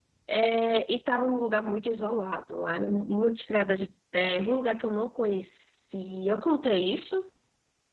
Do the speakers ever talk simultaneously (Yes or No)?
No